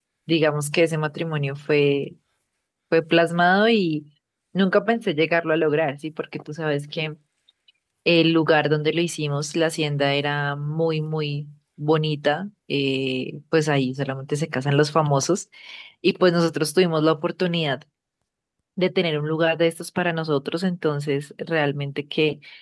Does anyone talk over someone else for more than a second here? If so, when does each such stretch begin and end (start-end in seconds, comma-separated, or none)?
none